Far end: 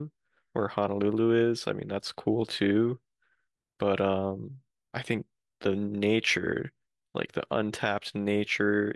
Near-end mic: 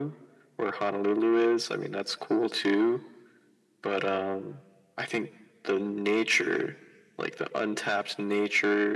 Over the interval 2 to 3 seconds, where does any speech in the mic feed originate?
echo only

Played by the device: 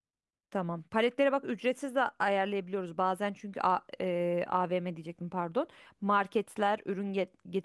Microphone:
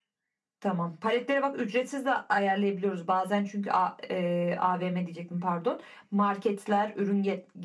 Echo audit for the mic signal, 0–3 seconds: echo only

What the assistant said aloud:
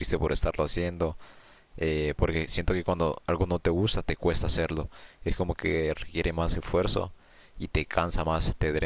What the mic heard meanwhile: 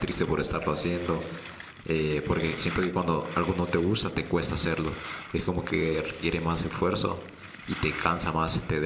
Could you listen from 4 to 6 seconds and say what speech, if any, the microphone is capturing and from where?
echo only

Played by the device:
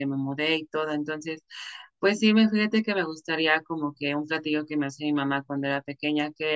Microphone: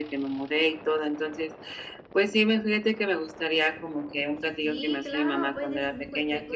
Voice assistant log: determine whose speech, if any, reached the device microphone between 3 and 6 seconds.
both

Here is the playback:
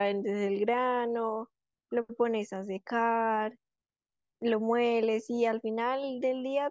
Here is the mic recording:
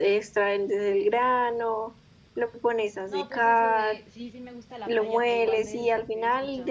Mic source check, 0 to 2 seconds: echo only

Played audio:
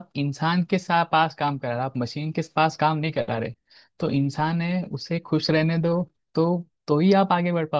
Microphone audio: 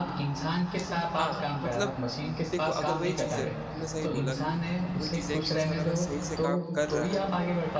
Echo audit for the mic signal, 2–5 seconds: both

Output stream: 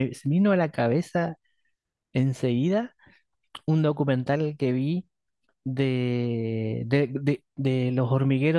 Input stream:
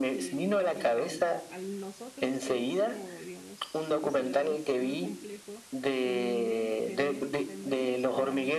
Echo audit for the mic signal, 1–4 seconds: both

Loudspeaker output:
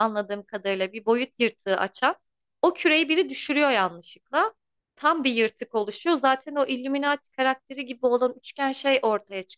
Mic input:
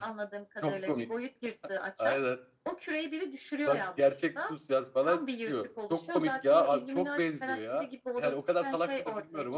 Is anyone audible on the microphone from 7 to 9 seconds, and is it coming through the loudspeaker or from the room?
both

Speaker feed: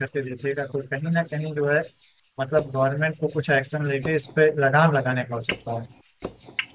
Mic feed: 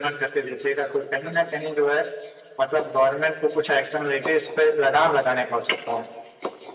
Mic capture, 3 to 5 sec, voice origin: echo only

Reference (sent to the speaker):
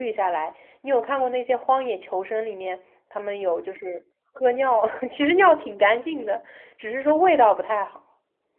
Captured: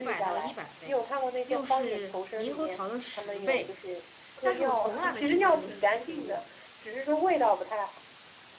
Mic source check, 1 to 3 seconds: both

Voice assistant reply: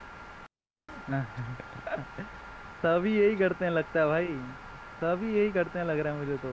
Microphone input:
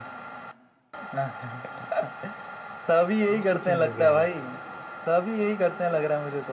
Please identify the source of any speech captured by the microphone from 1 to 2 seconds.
echo only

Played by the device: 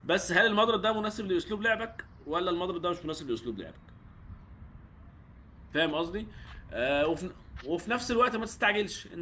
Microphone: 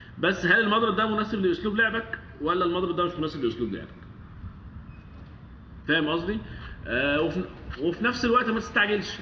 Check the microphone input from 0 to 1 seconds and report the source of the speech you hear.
echo only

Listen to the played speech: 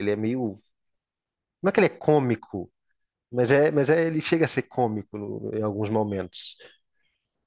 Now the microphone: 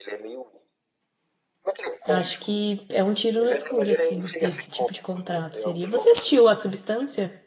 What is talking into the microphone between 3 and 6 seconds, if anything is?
both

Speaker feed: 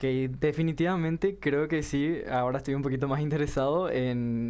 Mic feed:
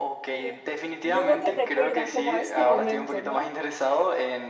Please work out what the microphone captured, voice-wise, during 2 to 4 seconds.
both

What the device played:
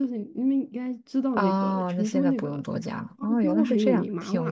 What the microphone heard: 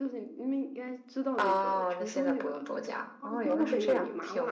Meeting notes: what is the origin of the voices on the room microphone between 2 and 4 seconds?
echo only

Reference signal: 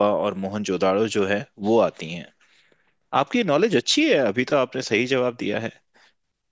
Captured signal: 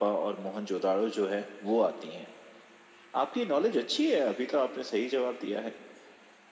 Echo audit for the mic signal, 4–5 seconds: echo only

